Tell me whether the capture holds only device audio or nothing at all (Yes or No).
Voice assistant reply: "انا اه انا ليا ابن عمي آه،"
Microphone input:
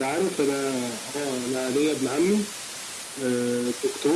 Yes